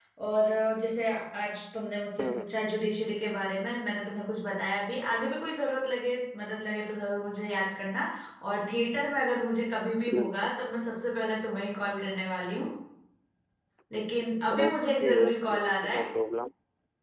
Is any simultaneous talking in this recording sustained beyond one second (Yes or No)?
Yes